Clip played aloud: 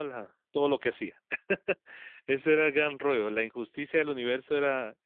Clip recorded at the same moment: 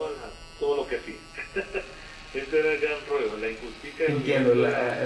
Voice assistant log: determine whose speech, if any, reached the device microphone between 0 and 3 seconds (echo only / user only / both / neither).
echo only